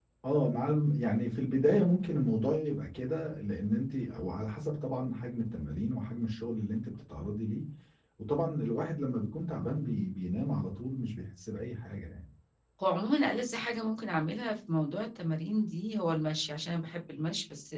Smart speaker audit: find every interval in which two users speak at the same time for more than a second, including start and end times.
none

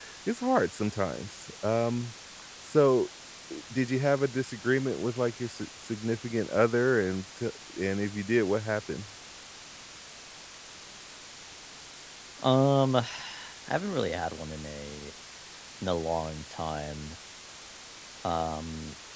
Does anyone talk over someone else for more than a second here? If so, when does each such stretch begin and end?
none

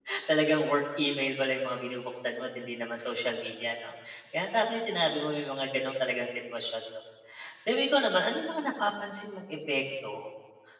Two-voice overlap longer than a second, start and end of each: none

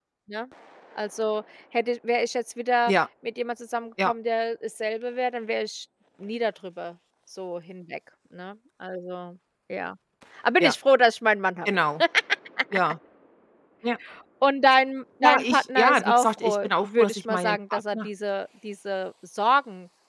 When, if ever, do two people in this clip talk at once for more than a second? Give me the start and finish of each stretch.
15.2-18.1

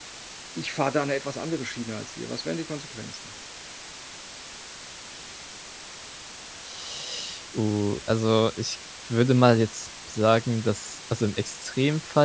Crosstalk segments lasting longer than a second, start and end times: none

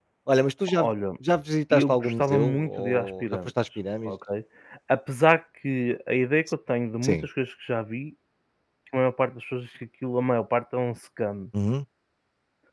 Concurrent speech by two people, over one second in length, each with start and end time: 1.7-3.5

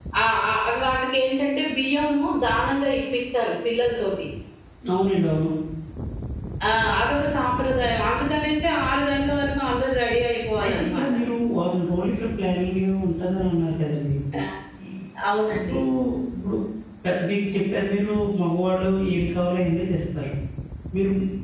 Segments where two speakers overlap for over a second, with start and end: none

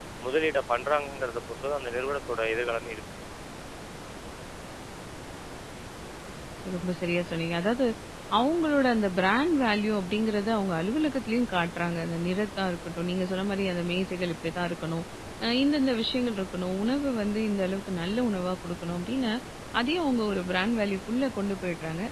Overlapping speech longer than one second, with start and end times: none

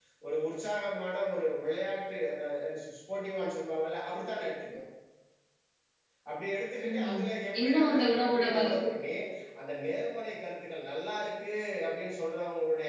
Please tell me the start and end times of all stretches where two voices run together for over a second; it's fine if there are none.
7.6-8.8

